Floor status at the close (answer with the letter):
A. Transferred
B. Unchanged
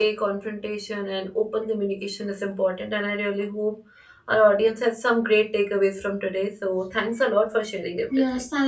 A